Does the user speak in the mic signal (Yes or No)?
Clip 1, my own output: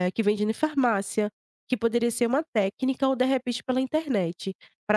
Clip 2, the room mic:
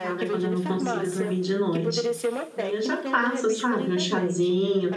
Yes